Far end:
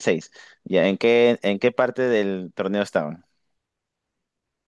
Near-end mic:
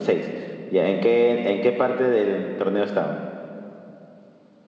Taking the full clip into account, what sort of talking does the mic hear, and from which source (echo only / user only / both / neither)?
echo only